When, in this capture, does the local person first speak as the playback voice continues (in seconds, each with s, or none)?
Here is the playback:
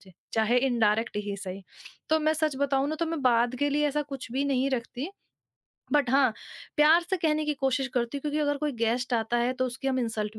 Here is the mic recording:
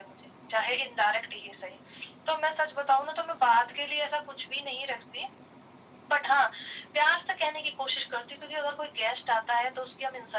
none